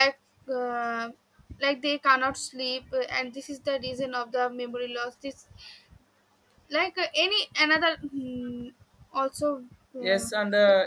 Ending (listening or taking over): taking over